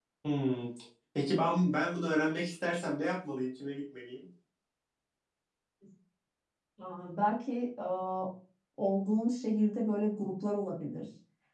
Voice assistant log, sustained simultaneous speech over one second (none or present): none